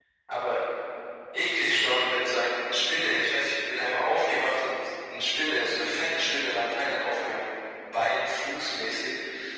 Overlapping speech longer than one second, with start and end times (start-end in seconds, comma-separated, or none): none